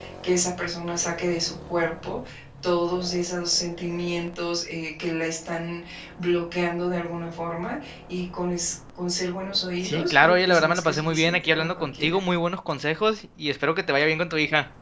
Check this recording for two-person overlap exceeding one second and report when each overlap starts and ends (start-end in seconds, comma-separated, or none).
9.8-12.2